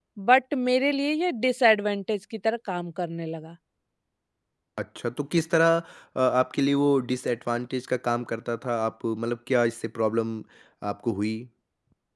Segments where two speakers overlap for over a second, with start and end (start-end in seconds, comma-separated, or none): none